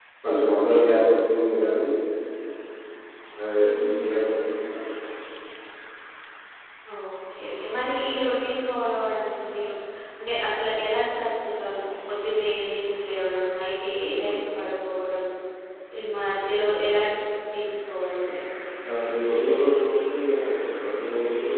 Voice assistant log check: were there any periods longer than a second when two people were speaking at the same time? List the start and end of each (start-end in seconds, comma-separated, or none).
none